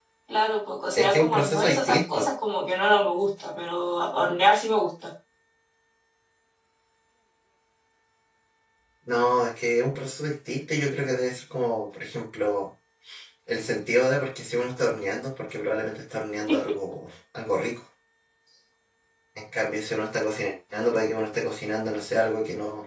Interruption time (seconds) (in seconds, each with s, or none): 1.0 s